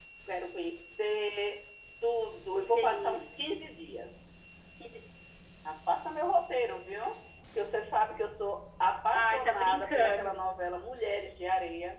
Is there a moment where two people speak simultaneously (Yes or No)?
Yes